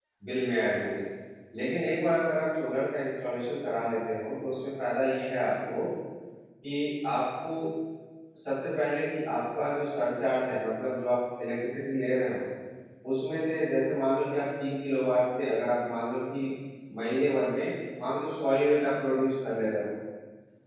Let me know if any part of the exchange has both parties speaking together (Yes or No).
No